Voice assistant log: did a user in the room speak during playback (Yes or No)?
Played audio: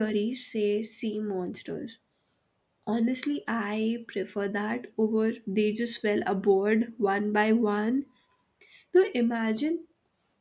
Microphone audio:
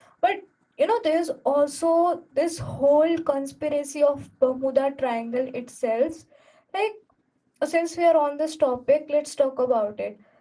Yes